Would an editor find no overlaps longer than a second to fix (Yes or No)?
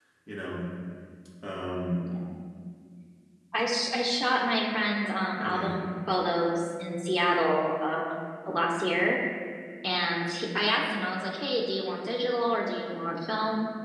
Yes